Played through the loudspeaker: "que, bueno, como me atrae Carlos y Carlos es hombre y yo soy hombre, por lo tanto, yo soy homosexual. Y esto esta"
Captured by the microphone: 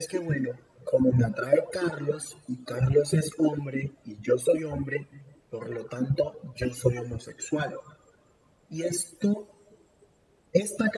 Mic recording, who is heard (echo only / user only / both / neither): echo only